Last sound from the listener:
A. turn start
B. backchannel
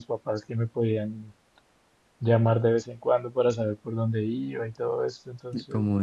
B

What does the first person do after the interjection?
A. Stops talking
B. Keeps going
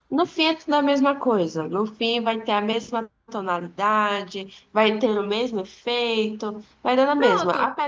B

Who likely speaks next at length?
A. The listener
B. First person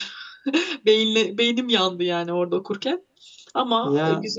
A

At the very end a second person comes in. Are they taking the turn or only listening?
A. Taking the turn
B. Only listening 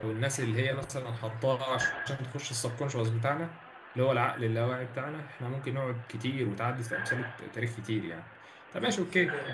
B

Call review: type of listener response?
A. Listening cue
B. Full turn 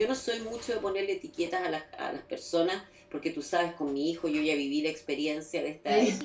A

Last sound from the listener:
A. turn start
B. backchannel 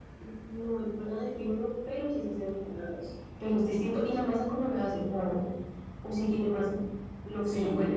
A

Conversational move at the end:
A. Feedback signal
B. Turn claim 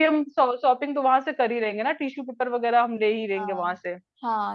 B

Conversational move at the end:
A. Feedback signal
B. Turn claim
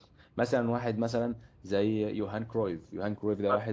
A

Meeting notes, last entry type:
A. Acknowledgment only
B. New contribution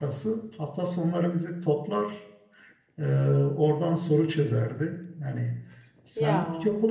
A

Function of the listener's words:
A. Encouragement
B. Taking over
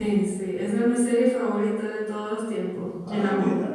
A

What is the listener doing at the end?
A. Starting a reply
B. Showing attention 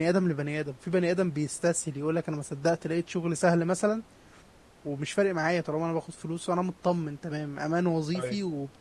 B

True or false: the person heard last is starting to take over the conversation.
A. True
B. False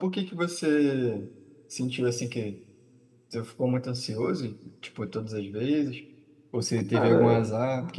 B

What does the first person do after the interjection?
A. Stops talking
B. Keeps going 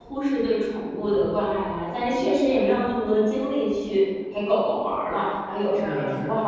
A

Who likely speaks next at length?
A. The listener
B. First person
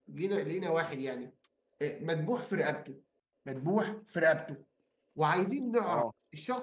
B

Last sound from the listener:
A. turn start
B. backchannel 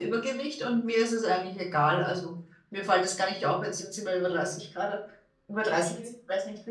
B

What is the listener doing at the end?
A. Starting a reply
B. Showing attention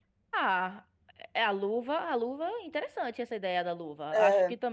B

